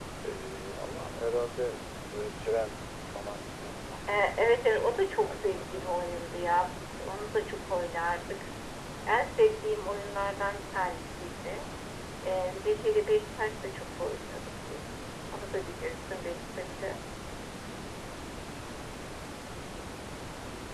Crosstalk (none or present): present